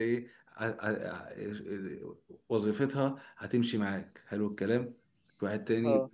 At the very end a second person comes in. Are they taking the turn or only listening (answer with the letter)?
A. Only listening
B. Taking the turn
A